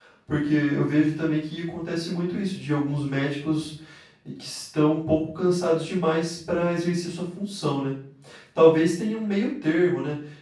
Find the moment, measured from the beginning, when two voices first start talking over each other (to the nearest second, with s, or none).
none